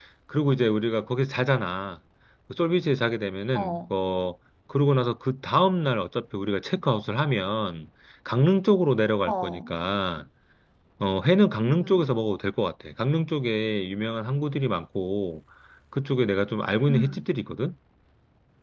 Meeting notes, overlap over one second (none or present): none